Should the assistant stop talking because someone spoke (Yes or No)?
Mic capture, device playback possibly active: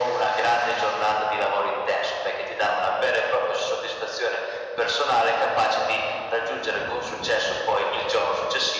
No